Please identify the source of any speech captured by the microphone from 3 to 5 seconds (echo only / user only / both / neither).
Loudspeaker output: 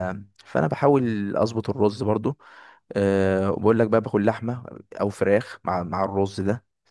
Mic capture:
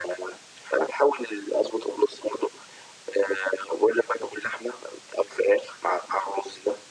echo only